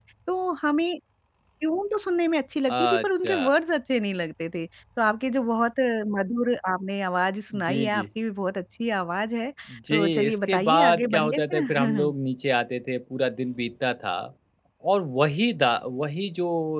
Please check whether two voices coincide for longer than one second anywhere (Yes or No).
Yes